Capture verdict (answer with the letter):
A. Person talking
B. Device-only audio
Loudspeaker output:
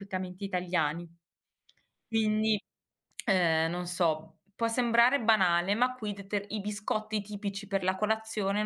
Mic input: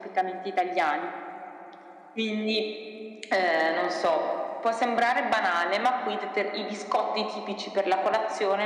B